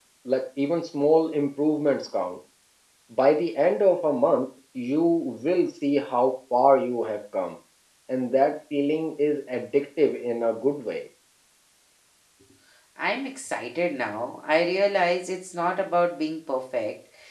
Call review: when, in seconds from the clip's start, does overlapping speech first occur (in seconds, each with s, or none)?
none